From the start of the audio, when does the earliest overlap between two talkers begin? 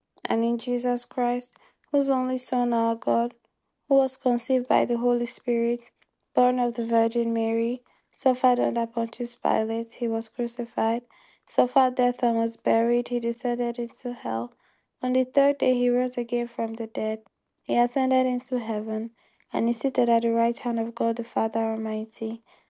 none

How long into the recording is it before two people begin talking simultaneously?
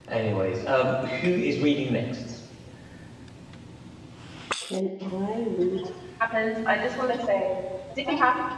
none

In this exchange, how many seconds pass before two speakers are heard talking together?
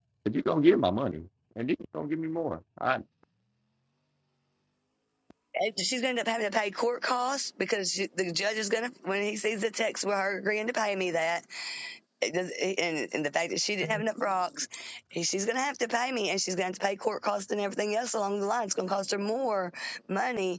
none

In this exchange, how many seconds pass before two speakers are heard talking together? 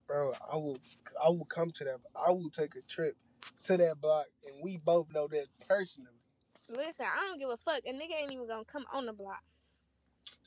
none

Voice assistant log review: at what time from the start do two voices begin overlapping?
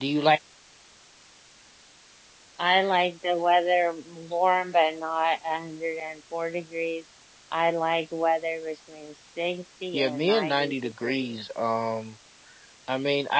10 s

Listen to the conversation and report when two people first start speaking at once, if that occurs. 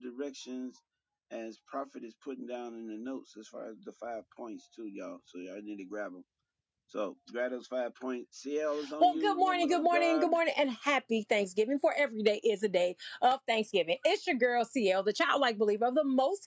9 s

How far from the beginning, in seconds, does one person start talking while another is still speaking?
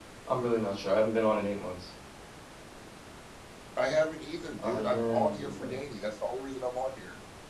5 s

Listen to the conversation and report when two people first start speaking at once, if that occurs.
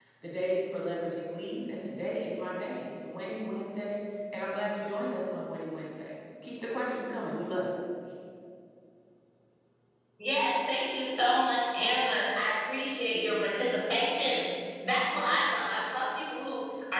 none

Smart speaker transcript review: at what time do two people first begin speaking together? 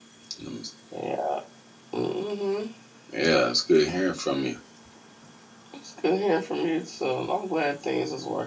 none

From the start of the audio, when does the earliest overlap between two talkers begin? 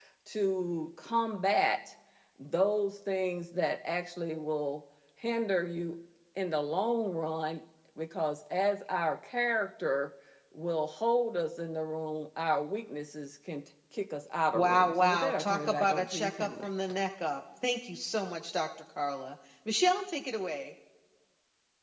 15 s

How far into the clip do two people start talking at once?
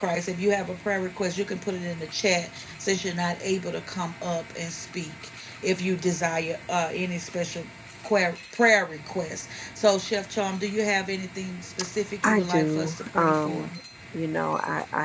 12 s

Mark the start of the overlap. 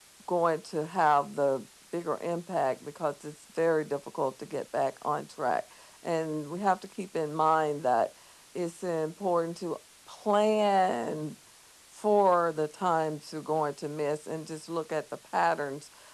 none

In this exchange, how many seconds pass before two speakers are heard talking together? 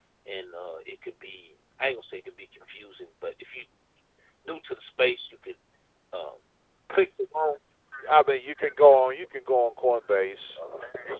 none

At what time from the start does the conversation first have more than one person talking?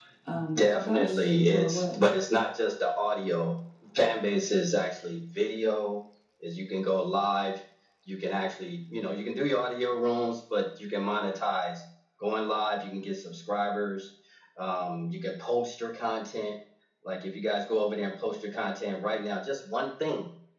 1 s

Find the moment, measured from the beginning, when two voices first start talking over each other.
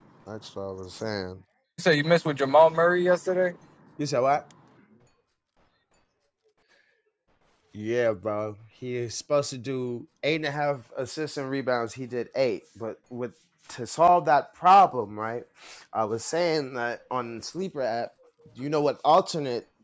none

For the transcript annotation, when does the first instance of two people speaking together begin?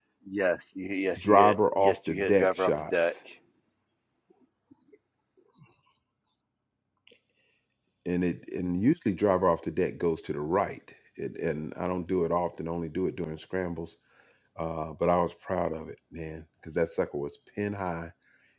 1 s

